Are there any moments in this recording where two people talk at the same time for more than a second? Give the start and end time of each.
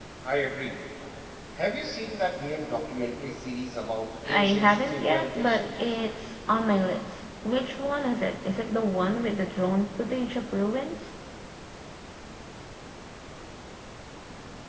4.3-6.0

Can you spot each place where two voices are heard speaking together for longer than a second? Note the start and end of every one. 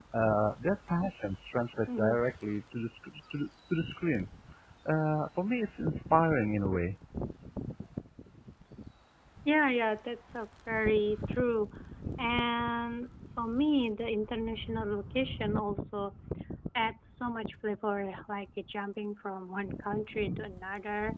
none

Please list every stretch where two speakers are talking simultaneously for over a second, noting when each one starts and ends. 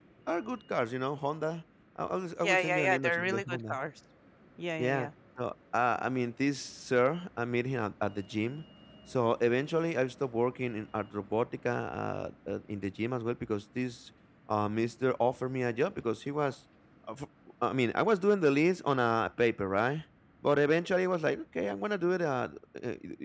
2.4-3.7

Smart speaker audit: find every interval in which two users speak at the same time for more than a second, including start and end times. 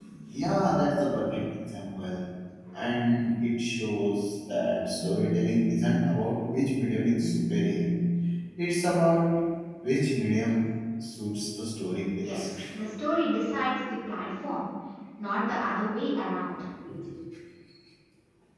none

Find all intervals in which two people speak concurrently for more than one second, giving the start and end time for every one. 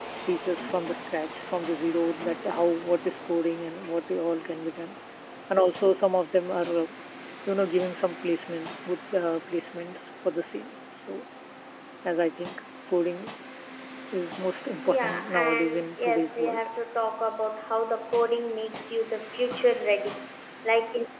14.8-16.7

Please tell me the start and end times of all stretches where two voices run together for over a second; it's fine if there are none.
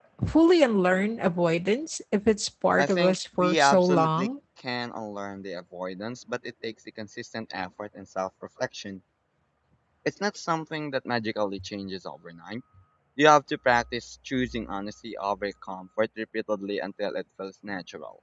2.8-4.3

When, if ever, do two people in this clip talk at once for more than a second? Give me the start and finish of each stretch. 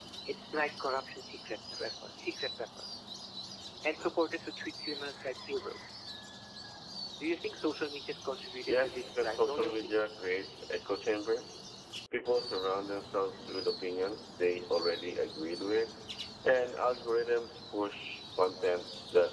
8.7-10.0

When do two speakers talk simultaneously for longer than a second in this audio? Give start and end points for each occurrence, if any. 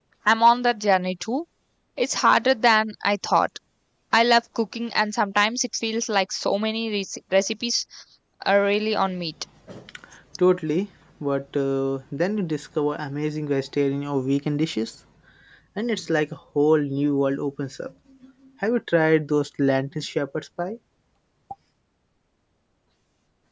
none

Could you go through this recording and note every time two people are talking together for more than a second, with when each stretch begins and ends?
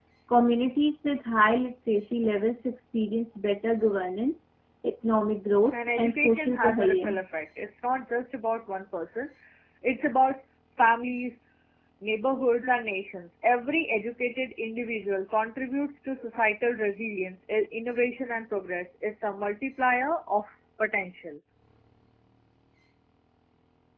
5.7-7.2

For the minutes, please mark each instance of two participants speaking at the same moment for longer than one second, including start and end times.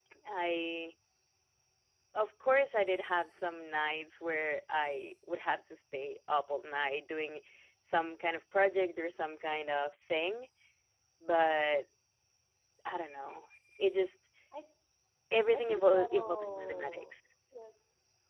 15.5-17.1

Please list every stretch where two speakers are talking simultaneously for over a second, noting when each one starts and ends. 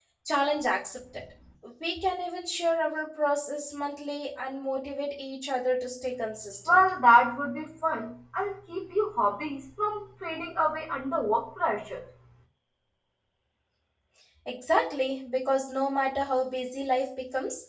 none

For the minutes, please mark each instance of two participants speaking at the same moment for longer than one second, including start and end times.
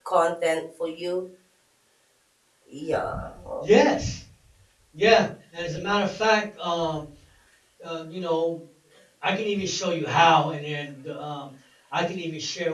none

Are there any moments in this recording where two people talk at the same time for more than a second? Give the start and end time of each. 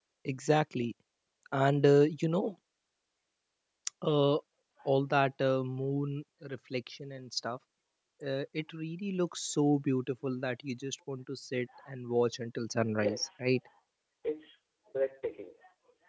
none

